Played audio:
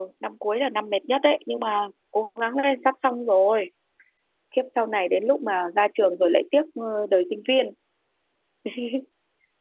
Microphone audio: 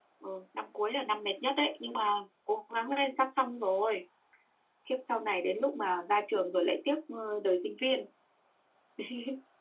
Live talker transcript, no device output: none

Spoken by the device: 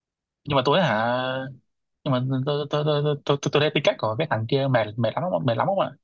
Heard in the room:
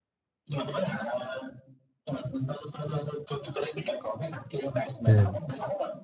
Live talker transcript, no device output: ừ.

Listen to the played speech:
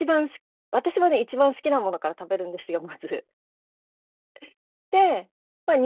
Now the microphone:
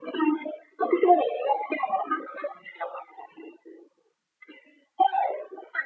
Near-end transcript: none

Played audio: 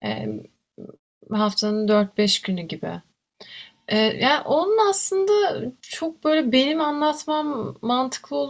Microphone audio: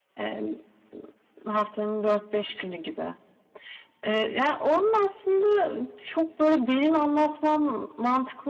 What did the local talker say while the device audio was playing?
none

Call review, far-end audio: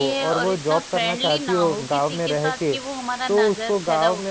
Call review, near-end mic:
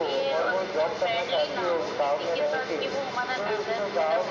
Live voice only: none

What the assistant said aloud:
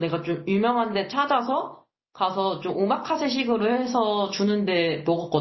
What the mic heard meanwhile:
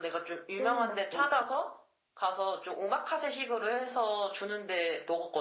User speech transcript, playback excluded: 너는 막 또

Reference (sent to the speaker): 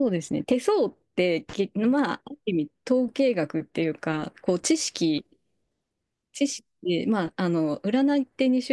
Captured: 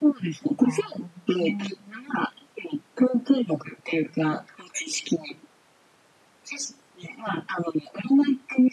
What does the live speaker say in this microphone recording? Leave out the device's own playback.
あうん

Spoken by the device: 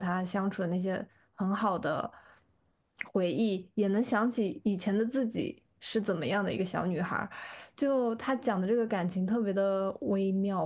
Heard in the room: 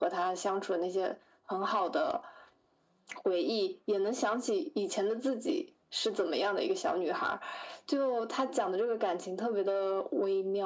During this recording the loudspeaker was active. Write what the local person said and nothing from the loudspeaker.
none

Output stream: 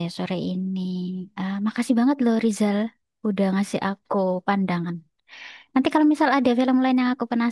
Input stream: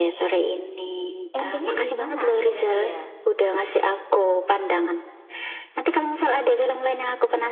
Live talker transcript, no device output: endingnya gimana akhirnya dia?

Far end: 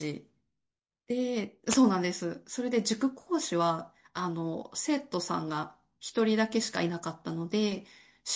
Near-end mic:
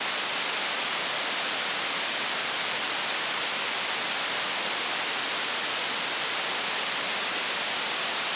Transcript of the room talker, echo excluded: none

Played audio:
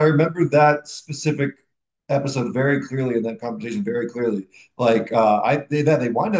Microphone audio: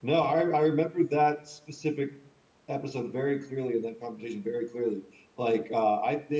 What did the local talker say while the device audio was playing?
none

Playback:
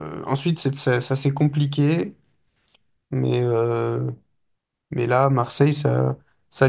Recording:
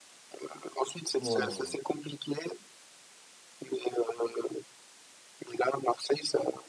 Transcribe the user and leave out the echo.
Ouais, ouais.

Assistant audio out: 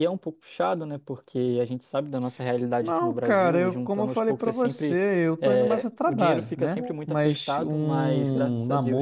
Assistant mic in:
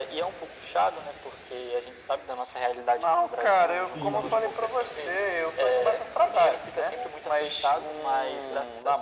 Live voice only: Sim, sim.

